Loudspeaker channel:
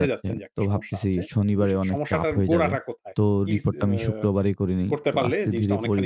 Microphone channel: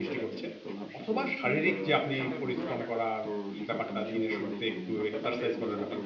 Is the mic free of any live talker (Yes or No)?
No